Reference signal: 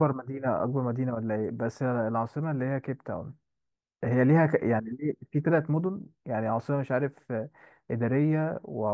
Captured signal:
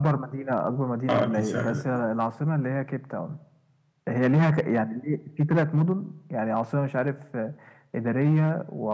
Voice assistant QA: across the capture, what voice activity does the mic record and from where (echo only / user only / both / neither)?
both